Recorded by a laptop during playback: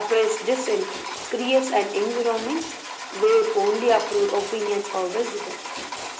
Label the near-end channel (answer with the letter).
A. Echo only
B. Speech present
A